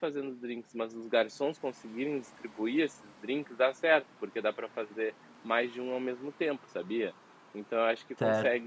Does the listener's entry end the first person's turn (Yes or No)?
No